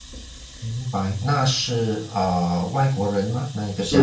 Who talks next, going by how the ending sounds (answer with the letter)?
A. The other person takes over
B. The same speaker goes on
A